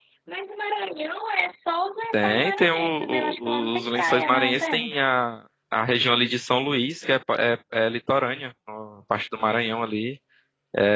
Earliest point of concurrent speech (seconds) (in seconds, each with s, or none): 2.1 s